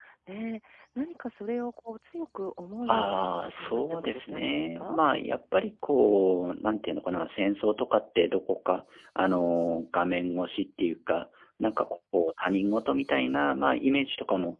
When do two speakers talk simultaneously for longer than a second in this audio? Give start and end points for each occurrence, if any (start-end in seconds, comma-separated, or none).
2.9-5.0